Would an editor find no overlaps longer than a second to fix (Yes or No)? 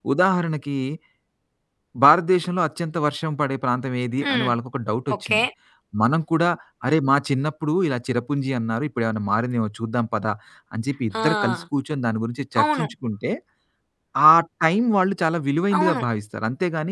Yes